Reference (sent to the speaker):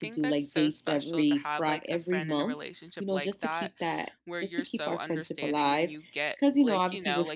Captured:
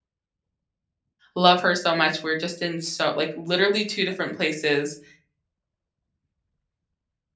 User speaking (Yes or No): Yes